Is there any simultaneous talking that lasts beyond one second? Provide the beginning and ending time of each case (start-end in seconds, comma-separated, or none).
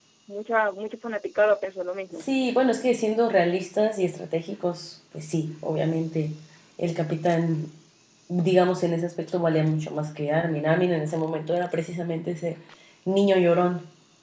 none